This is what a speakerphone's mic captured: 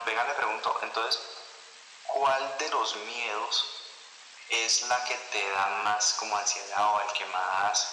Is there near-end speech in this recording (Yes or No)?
No